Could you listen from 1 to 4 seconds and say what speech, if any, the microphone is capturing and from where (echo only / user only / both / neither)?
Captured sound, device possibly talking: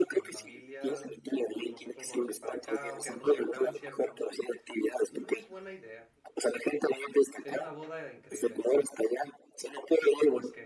both